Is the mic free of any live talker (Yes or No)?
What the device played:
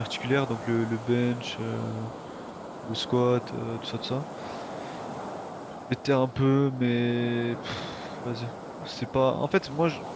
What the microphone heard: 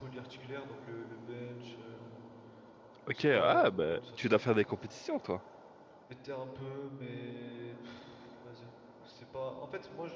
No